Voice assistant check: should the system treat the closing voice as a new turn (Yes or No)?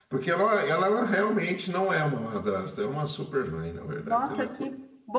Yes